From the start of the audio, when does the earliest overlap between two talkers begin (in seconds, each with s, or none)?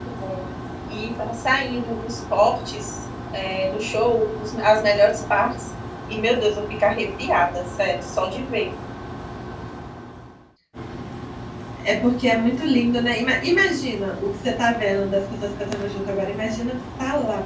none